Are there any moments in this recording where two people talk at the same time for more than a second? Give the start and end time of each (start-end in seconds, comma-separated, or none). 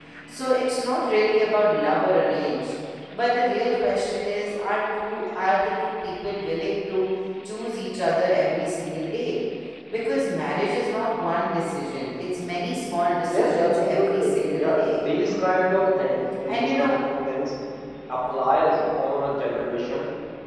13.3-14.8